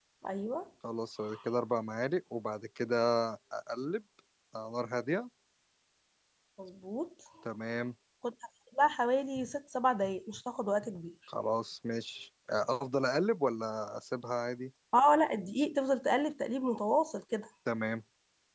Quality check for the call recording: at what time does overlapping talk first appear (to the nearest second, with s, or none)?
none